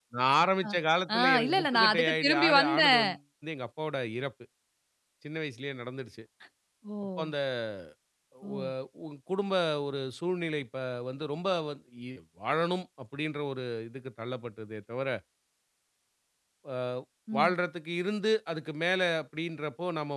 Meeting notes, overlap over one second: present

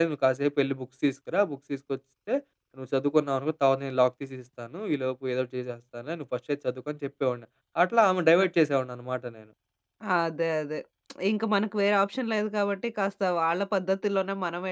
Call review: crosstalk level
none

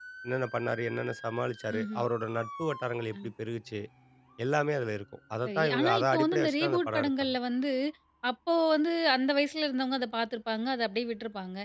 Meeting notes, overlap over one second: present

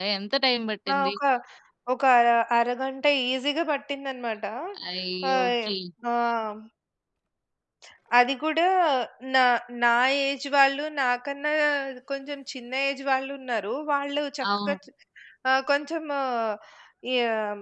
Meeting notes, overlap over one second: none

